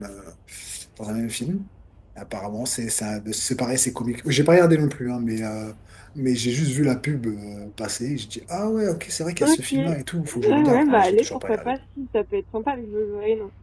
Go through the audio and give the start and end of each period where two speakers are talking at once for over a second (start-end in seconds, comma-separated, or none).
10.5-11.7